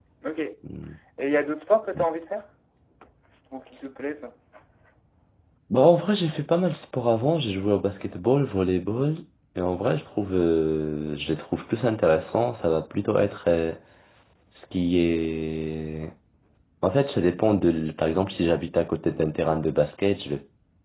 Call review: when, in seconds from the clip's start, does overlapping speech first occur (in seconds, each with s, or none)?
none